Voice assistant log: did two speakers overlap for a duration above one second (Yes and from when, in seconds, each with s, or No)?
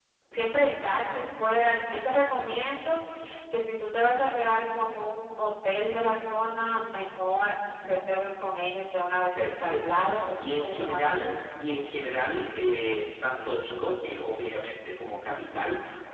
Yes, from 9.3 s